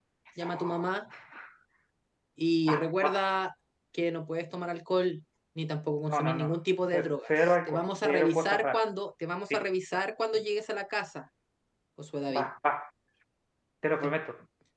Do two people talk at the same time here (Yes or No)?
Yes